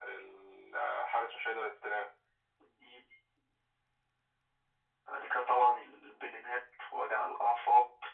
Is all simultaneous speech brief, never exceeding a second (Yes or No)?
Yes